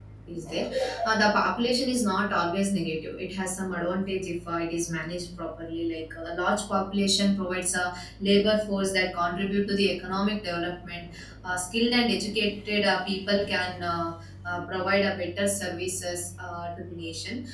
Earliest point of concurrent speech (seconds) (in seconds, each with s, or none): none